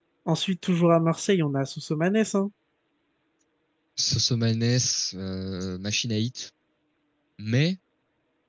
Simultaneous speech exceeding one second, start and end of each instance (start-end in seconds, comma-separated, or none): none